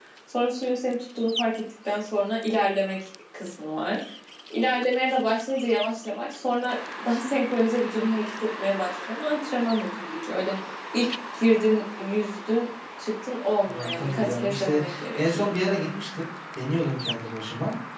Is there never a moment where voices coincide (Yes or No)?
No